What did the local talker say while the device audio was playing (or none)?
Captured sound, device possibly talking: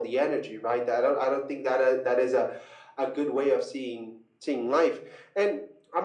none